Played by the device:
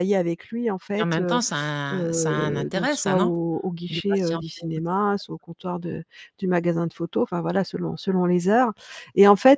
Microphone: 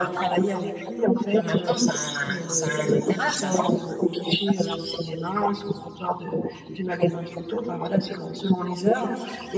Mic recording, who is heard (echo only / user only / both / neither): echo only